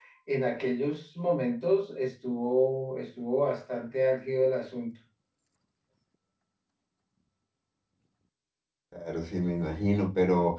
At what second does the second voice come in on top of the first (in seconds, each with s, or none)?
none